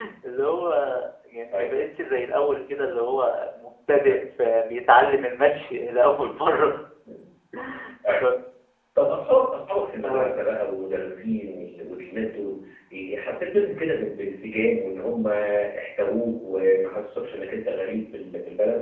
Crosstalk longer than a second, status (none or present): none